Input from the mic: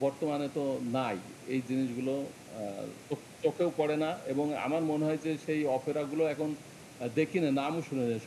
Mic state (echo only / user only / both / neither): echo only